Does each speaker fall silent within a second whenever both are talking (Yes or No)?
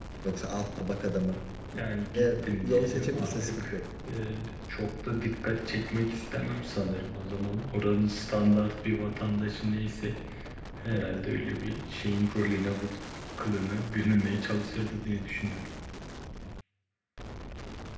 No